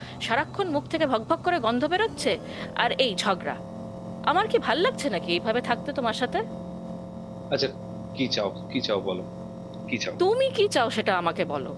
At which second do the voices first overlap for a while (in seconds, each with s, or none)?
none